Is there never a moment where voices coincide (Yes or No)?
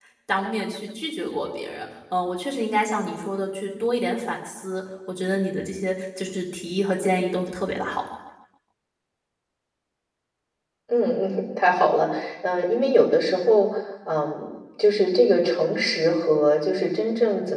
Yes